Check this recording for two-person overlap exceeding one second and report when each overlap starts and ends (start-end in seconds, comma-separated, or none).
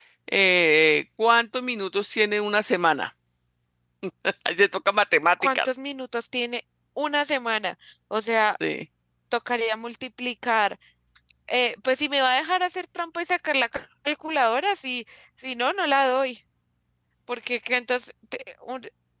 none